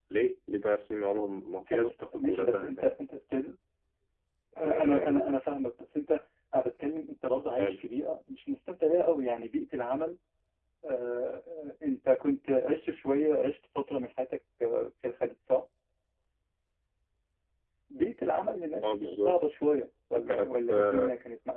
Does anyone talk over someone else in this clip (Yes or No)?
Yes